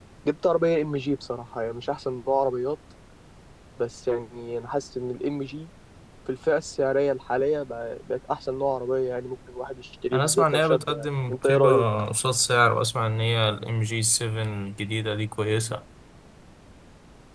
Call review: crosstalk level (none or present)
present